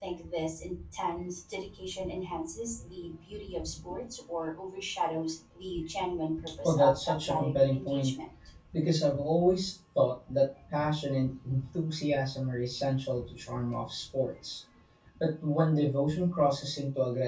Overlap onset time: 7 s

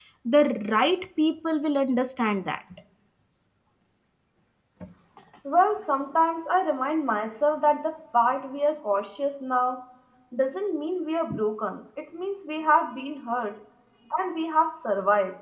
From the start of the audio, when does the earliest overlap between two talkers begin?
none

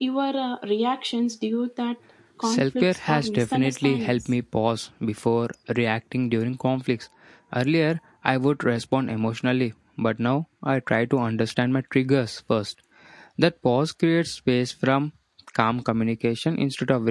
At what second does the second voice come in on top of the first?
2 s

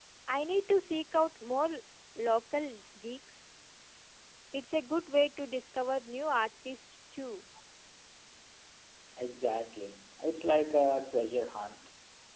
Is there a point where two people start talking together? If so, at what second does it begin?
none

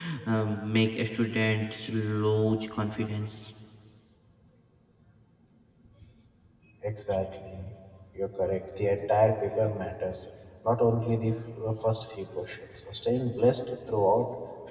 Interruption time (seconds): none

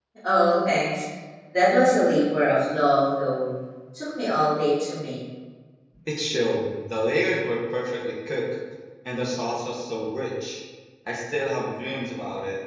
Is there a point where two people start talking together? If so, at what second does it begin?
none

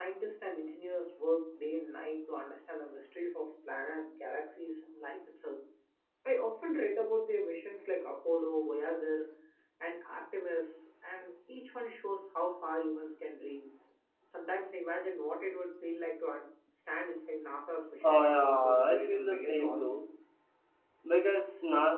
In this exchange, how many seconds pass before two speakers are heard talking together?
18 s

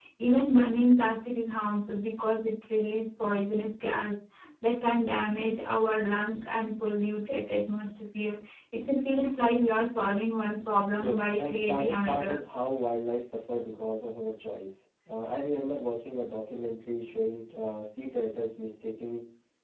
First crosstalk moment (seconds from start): 11 s

